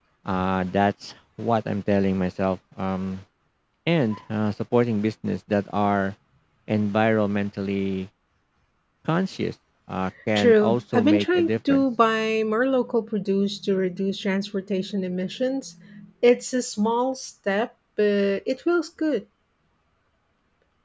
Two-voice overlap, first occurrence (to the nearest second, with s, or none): 10 s